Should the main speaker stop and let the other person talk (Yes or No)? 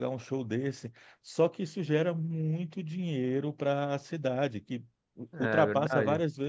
No